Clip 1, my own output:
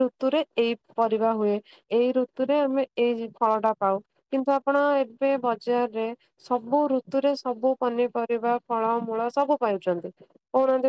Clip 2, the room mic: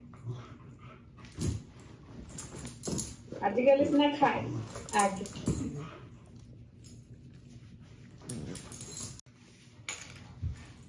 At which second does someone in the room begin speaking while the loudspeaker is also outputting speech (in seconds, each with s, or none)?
3.5 s